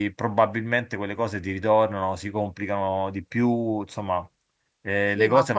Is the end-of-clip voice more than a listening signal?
Yes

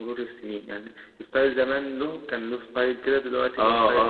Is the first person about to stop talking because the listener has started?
Yes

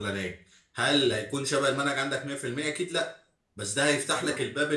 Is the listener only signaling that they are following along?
Yes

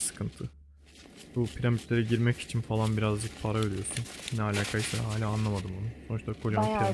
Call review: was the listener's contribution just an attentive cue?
No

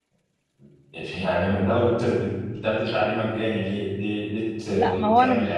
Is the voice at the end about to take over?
Yes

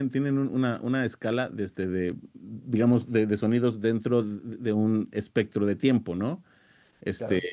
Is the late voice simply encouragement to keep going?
Yes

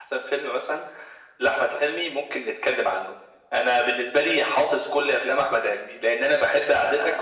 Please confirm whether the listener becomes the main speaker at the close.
No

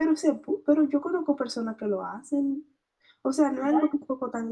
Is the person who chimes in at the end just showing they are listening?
Yes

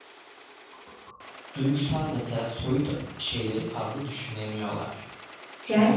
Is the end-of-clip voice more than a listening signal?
Yes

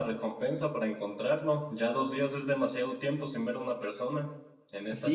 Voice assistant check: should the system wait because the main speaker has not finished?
No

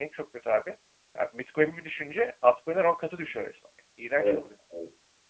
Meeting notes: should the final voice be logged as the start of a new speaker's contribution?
Yes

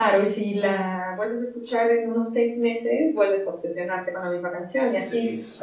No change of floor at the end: No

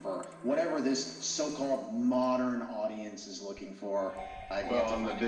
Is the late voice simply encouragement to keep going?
No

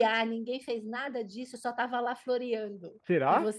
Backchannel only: Yes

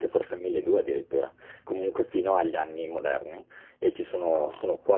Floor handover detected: No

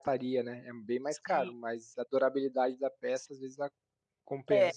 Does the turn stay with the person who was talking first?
No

